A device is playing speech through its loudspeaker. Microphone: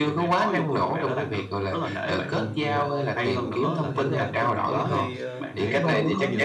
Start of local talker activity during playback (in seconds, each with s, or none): 2.1 s